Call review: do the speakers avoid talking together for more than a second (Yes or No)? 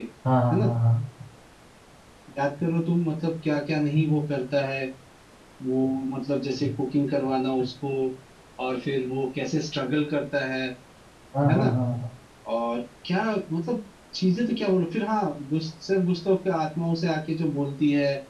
Yes